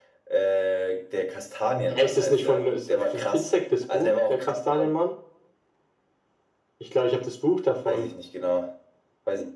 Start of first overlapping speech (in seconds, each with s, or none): 1.9 s